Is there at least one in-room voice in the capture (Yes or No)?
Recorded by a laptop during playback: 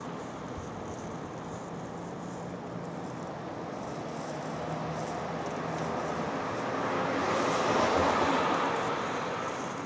No